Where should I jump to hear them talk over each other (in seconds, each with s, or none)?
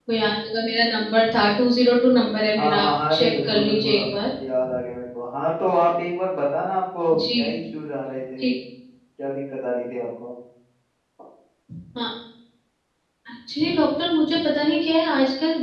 2.6 s